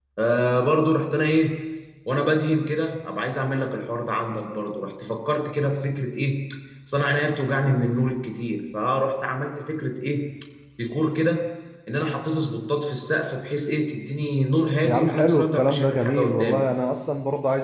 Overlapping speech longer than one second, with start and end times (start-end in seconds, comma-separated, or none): 14.8-16.6